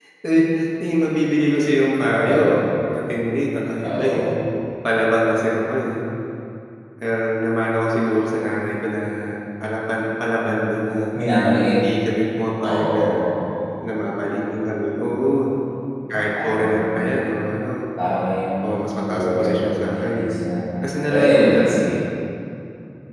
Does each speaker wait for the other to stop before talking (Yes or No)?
No